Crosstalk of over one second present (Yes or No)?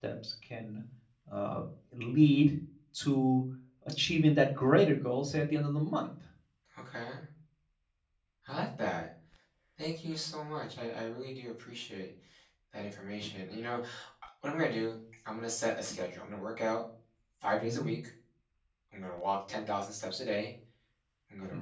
No